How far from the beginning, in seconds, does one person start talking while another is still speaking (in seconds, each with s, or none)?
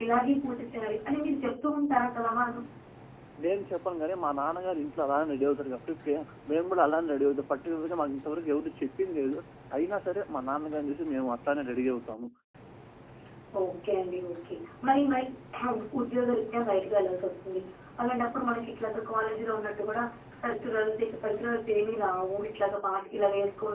none